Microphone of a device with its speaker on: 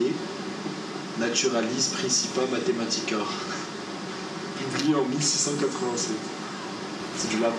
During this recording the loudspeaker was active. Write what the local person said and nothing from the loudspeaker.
none

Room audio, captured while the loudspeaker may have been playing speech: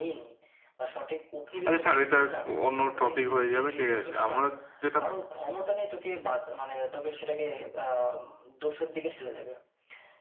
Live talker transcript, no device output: আচ্ছা ছাড় এটা অন্য টপিক হয়ে যাবে ঠিক আছে আমরা যেটা

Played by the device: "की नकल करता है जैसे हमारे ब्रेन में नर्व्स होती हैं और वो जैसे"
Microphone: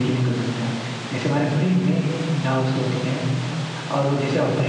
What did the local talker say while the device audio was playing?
none

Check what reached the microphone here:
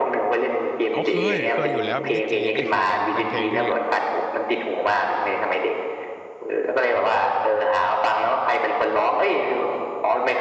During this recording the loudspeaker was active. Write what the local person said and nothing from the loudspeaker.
อ๋อเคยเคยอยู่แล้วบิลลี่จีนนี่คือเป็นเป็นเพลงที่

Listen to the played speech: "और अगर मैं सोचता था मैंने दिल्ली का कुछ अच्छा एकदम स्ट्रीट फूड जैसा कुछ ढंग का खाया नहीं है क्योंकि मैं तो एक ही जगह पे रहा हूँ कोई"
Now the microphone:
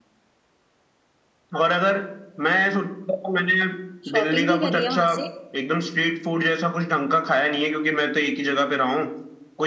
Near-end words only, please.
शॉपिंग भी करी है वहां से

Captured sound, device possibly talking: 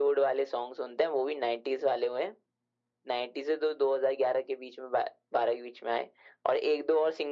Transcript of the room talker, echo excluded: none

